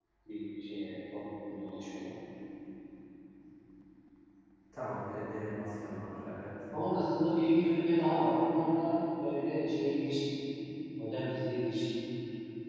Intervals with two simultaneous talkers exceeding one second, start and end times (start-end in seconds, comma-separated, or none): none